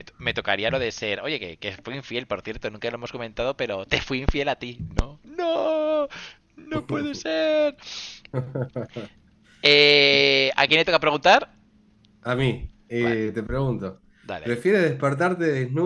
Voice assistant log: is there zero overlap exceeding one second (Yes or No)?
Yes